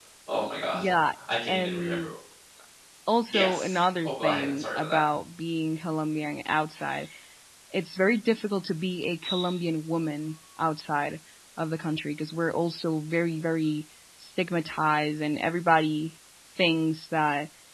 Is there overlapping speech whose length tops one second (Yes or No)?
Yes